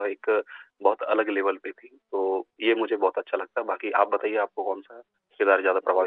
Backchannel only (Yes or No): No